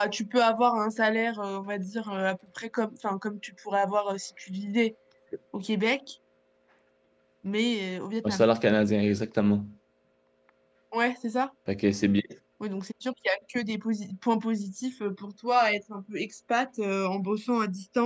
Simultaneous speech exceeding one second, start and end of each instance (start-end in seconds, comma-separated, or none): none